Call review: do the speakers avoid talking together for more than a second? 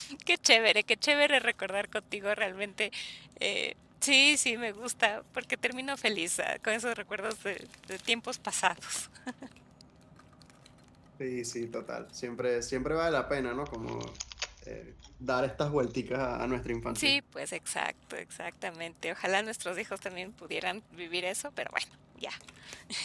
Yes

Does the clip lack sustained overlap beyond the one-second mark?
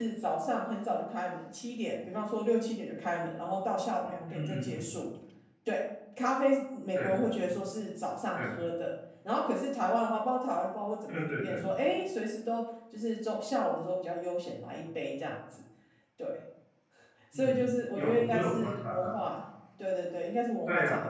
No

